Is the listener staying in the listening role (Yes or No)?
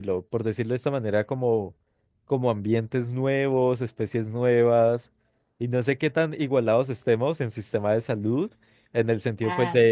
Yes